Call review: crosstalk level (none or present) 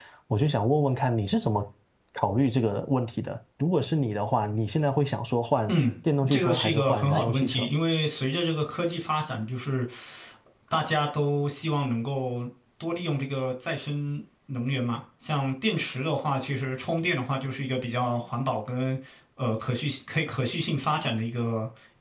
present